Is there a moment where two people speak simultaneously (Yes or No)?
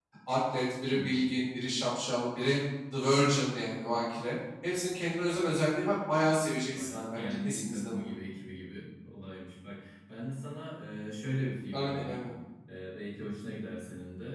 Yes